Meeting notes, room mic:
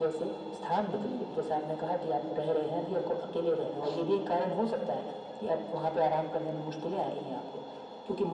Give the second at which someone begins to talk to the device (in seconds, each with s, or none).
none